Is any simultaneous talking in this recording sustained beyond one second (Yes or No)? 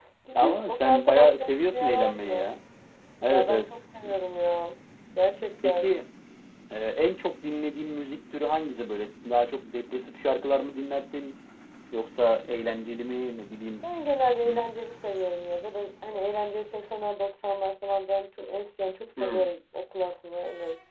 Yes